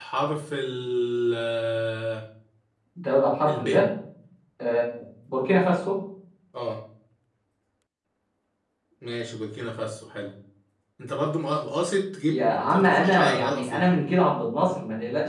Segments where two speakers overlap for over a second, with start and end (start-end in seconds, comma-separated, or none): 12.3-13.9